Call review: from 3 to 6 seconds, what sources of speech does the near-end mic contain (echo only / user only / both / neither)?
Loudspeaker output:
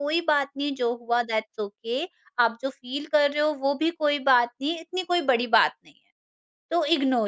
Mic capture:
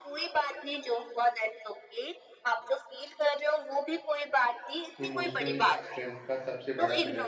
both